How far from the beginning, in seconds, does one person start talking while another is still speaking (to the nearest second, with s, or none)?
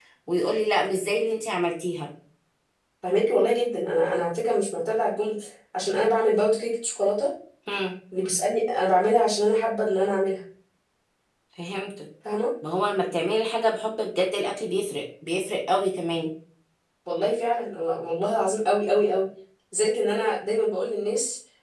none